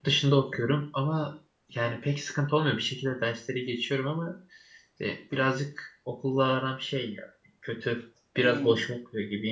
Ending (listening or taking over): listening